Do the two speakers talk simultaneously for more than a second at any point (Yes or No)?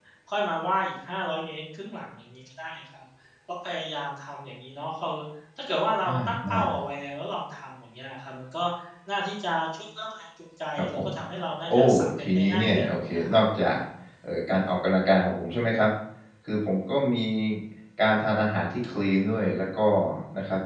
Yes